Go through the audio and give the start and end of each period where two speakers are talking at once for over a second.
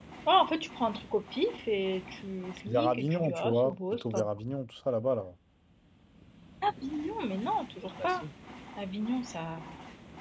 2.7-4.3

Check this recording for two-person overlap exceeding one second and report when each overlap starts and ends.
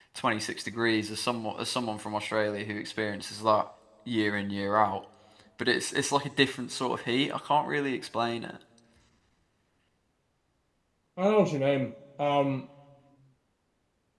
none

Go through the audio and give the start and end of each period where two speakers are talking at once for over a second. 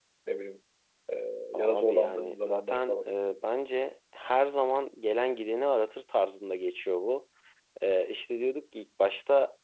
1.6-3.1

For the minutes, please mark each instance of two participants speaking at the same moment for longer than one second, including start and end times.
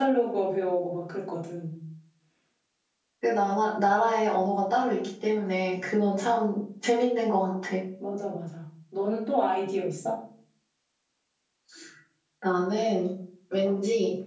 none

